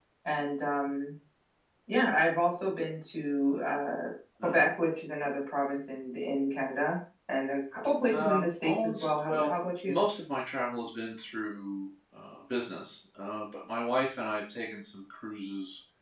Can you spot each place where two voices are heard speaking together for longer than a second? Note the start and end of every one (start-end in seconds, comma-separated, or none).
8.1-10.0